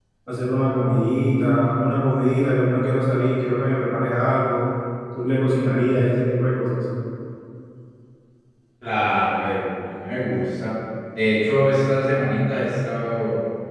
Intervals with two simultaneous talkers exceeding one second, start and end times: none

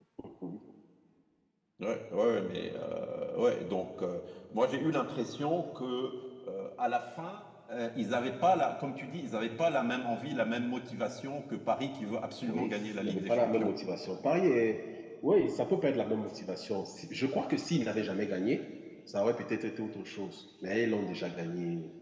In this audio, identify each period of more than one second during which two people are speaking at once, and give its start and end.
12.4-13.7

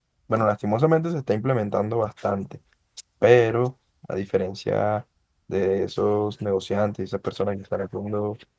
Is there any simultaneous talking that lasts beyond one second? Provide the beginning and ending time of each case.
none

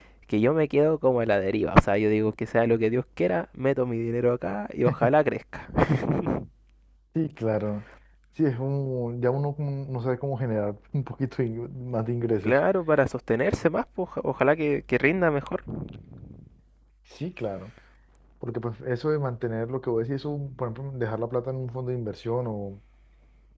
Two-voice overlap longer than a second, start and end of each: none

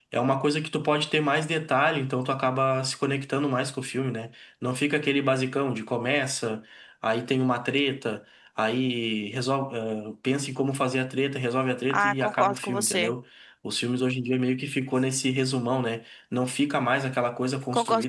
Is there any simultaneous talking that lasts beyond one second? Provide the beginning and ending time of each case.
11.9-13.1

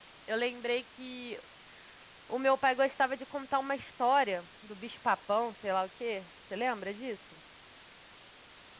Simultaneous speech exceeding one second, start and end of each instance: none

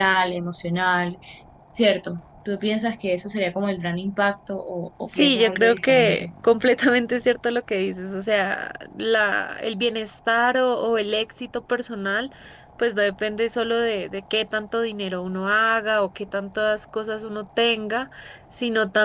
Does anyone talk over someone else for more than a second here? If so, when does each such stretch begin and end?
5.0-6.3

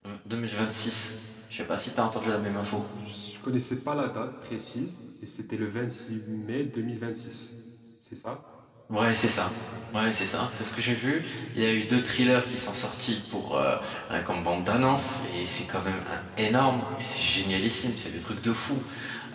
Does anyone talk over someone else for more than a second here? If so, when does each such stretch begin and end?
none

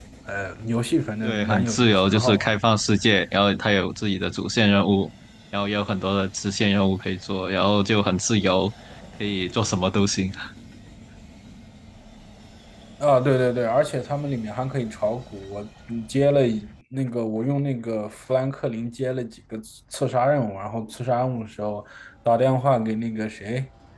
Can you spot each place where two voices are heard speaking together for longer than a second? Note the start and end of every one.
1.2-2.5

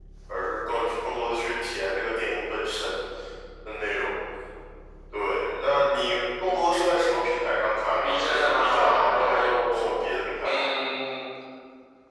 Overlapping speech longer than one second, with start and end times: 8.0-10.0

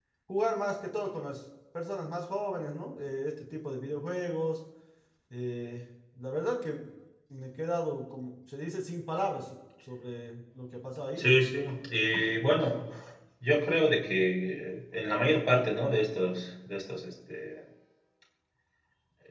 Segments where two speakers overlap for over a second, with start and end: none

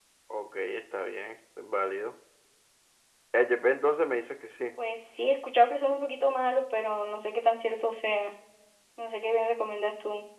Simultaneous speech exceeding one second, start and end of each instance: none

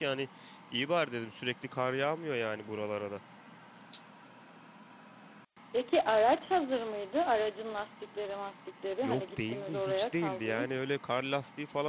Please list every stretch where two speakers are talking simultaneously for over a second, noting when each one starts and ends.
9.0-10.8

